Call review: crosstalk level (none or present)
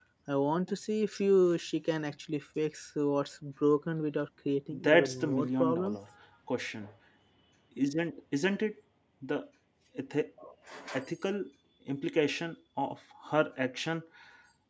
present